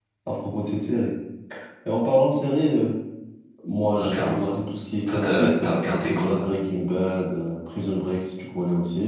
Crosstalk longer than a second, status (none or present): present